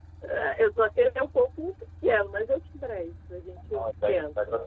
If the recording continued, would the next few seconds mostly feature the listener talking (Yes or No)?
Yes